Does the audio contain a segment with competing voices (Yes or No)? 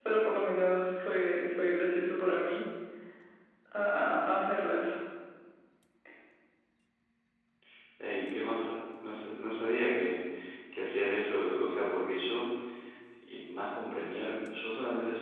No